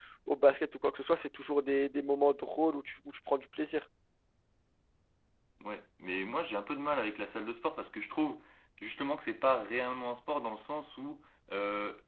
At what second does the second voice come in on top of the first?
none

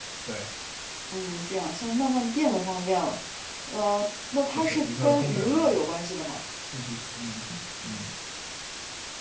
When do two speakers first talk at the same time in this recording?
4.6 s

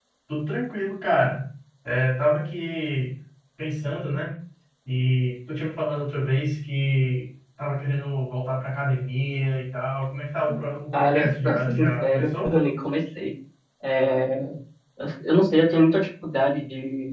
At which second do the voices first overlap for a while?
10.9 s

